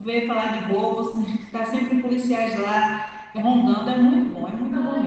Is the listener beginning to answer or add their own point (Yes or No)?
Yes